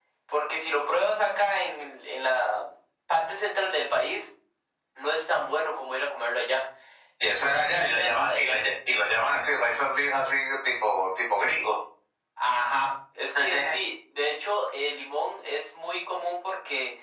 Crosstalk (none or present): present